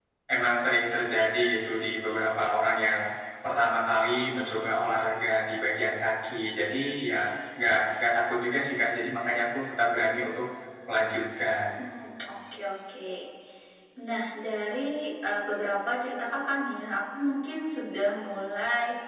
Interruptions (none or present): none